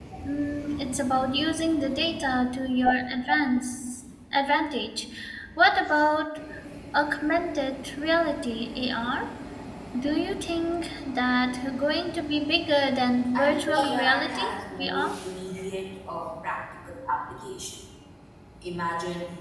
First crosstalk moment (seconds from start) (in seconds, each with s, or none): 13.3 s